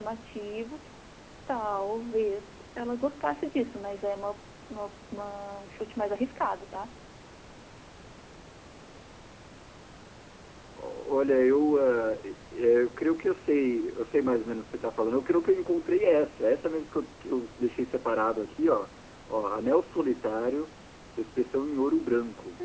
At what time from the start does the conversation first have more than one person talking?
none

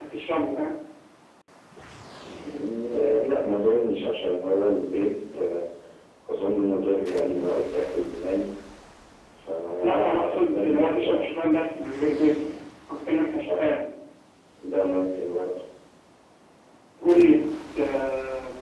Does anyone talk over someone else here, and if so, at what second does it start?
9.8 s

